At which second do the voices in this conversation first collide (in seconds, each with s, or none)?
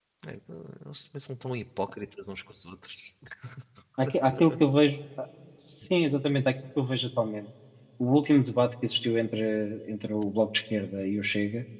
none